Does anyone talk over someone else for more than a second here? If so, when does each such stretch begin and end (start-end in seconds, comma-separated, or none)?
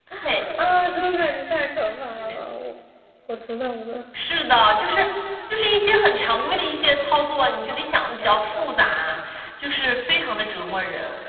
none